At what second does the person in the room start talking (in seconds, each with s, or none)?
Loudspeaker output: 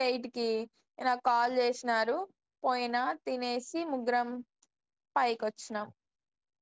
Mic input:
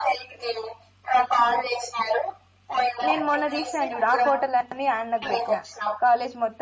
3.1 s